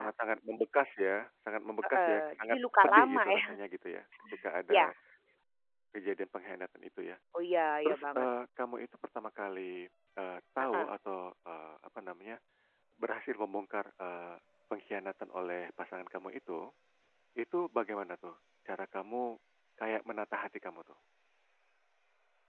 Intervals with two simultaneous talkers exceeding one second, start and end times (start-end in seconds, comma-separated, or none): 1.8-3.6